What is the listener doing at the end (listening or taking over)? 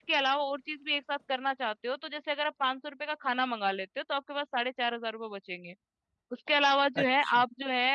listening